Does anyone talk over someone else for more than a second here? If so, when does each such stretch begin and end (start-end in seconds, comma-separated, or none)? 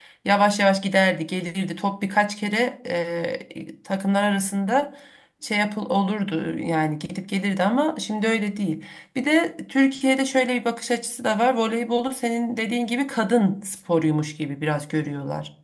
none